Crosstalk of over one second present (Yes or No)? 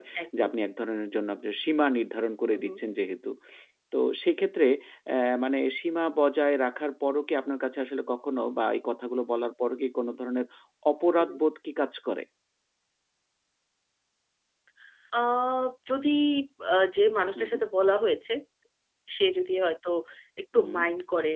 No